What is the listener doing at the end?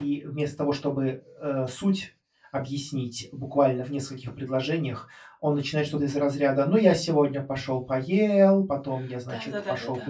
taking over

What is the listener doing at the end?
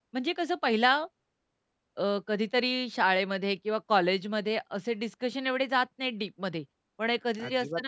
listening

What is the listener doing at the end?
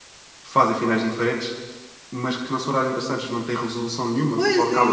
taking over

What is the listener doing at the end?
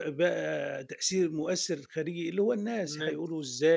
listening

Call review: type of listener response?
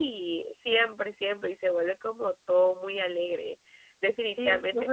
taking over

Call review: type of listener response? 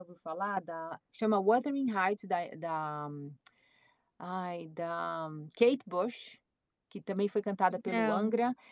listening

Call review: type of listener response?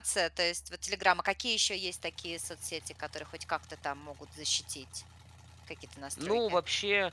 taking over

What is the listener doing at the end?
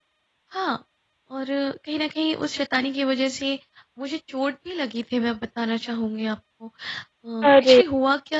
listening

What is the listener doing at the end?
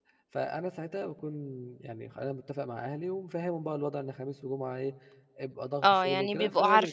taking over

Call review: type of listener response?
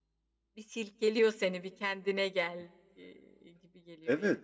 taking over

